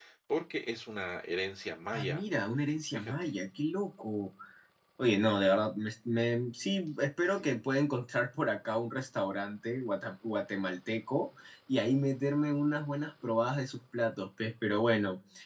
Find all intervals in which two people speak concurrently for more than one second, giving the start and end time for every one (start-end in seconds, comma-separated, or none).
none